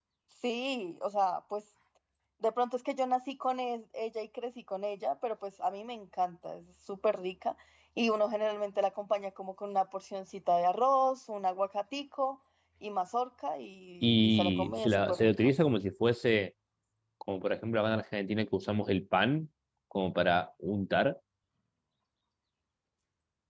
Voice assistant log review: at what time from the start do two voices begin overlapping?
14.0 s

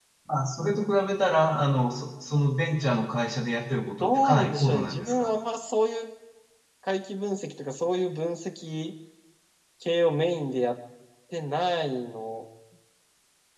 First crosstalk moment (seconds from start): 4.0 s

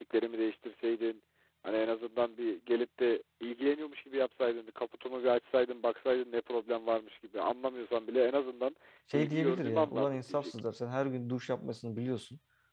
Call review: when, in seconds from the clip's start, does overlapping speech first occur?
9.1 s

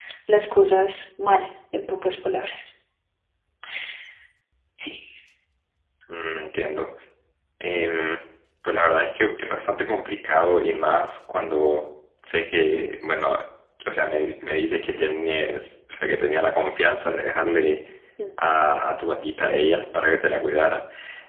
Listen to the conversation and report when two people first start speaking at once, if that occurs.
none

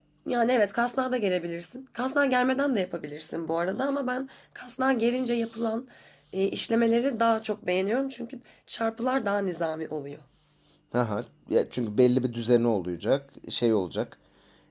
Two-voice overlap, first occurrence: none

